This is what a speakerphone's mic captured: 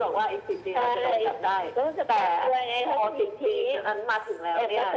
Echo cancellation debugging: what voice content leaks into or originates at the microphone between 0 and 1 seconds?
echo only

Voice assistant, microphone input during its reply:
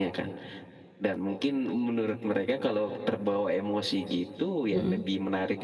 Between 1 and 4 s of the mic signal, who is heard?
echo only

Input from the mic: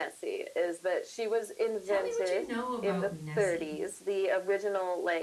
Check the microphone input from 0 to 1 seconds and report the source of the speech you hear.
echo only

